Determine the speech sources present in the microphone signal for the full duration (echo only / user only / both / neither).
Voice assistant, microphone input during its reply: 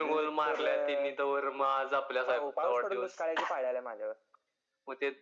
echo only